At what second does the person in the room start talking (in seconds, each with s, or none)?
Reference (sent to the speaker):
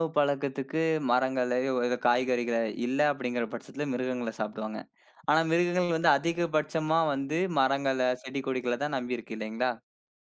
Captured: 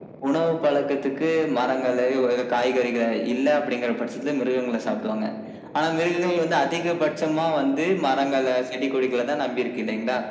none